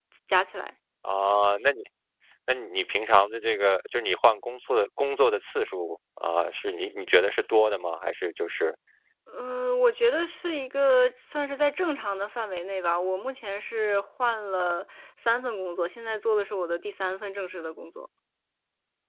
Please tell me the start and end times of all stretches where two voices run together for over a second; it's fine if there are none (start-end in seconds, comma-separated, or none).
none